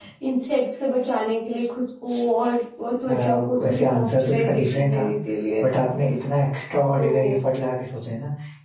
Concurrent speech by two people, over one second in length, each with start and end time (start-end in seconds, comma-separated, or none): 3.1-5.0